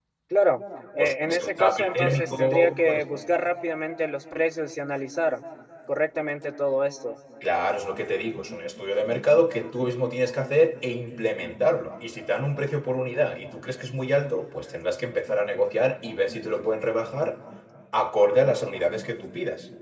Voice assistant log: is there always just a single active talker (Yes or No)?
No